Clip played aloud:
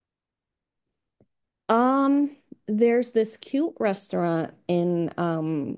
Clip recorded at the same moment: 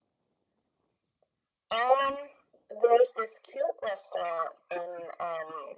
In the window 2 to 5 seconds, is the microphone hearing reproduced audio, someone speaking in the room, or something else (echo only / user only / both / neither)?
echo only